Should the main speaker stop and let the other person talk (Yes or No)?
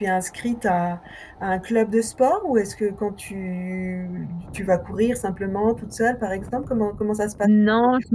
Yes